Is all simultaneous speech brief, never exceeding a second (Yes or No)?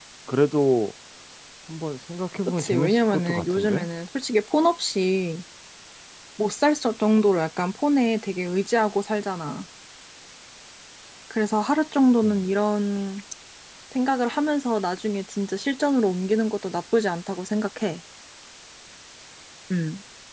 No